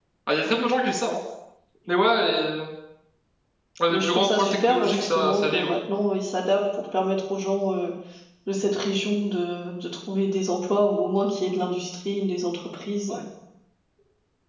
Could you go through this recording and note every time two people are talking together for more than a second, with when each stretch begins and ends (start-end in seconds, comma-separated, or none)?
3.9-5.8